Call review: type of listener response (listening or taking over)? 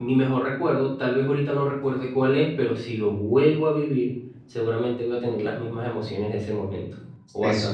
taking over